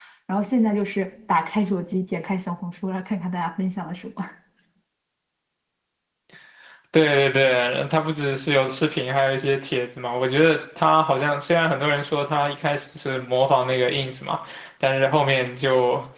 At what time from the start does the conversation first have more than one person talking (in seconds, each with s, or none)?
none